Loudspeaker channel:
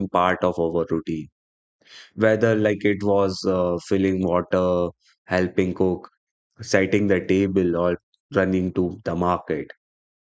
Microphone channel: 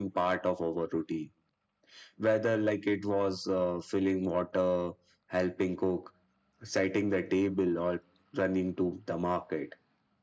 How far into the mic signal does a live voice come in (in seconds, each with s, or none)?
none